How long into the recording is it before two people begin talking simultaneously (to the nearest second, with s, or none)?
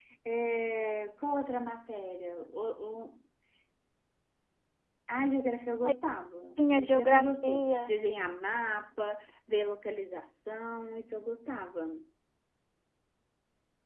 7 s